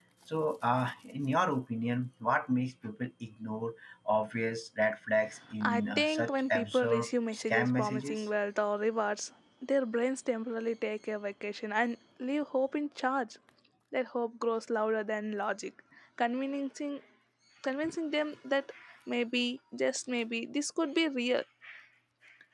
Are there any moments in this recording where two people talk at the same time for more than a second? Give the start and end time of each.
5.6-8.2

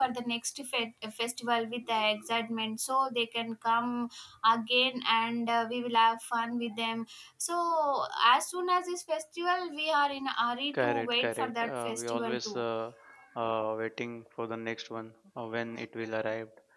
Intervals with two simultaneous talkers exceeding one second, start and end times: 10.8-12.6

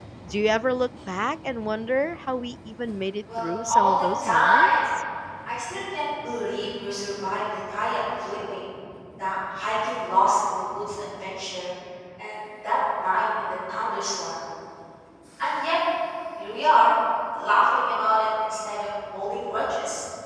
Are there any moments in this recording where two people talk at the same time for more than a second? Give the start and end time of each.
3.4-4.7

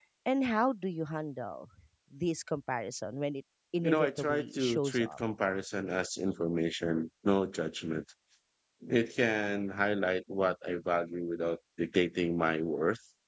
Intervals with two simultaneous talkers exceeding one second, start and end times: 3.8-5.2

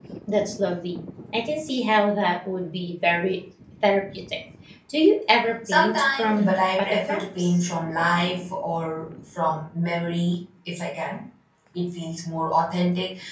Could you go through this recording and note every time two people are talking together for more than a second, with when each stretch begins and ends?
5.7-7.5

